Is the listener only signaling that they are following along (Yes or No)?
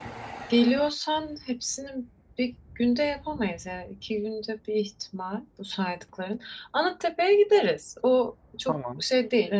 Yes